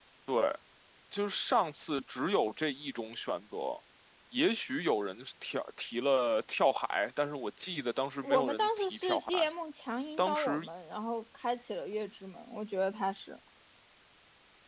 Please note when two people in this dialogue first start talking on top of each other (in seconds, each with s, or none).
8.2 s